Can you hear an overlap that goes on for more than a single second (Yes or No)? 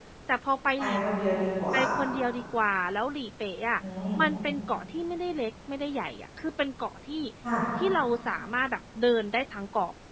No